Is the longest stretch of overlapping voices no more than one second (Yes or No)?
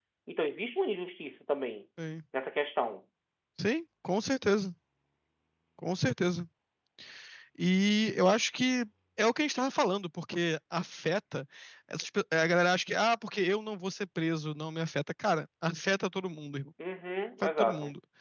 Yes